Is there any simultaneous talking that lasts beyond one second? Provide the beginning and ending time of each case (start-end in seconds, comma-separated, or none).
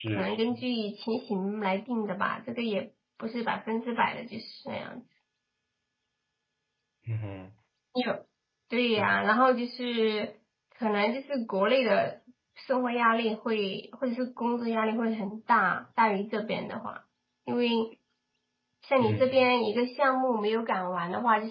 none